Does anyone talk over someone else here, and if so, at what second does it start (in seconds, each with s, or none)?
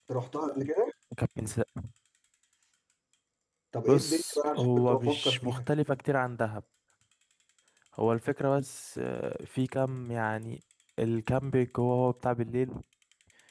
3.9 s